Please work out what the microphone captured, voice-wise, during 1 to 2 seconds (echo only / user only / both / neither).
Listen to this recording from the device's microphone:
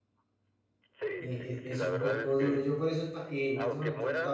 both